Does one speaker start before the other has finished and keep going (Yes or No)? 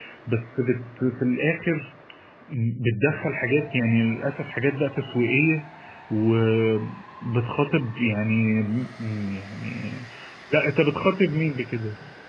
No